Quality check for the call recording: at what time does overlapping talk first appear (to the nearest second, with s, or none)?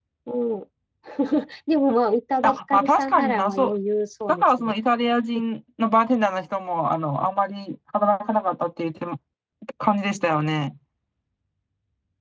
2 s